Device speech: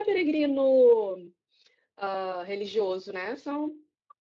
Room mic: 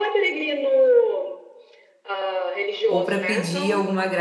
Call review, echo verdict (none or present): present